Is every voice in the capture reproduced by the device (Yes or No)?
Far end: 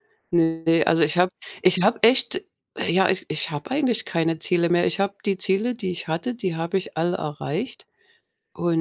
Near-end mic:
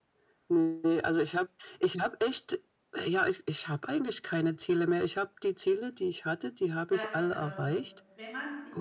No